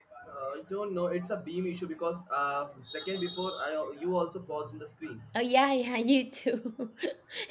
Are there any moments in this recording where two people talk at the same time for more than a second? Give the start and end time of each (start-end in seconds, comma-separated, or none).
none